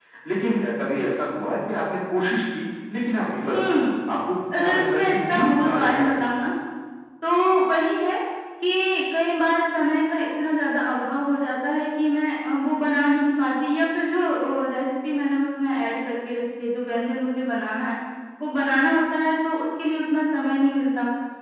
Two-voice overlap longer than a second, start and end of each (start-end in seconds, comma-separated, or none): 4.6-6.3